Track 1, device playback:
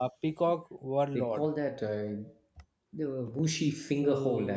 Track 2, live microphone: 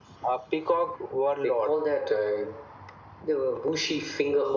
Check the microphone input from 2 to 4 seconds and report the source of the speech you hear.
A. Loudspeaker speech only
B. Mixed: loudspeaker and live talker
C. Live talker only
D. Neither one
A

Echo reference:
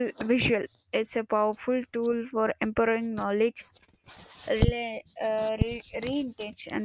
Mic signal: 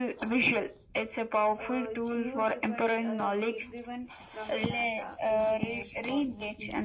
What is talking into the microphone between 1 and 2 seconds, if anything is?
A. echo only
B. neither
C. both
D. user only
C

